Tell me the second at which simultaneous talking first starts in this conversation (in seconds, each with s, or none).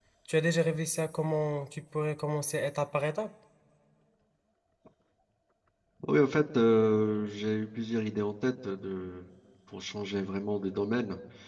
none